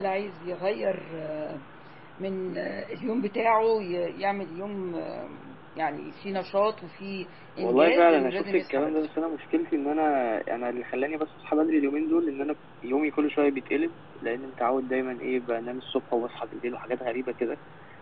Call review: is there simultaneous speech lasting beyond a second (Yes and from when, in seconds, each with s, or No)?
Yes, from 7.6 s